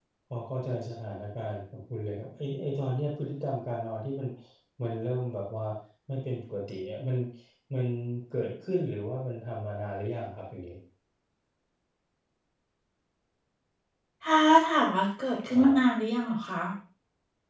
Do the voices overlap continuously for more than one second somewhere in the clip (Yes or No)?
No